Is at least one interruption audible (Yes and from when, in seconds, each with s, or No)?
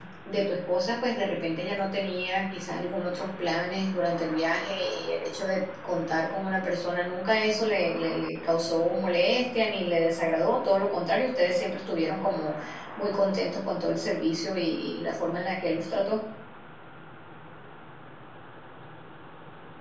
No